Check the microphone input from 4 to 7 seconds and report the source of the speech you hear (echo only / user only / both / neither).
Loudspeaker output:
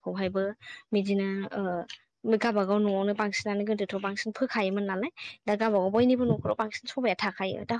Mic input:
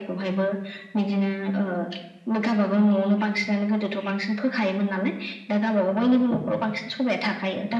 echo only